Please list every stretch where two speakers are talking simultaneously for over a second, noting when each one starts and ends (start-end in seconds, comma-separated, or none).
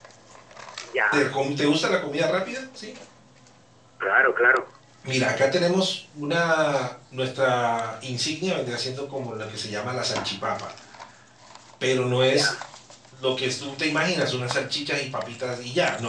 none